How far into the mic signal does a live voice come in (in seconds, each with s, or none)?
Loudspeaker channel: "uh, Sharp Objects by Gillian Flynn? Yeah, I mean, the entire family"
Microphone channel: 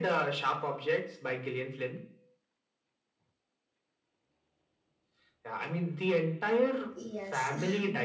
6.9 s